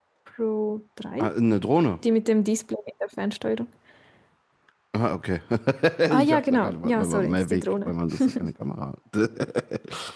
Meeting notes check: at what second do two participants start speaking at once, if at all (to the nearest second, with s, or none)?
6 s